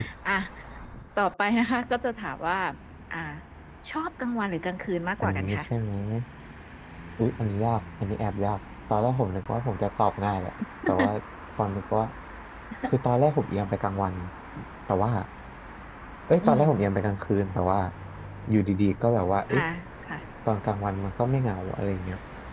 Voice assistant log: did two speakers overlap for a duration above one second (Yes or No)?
No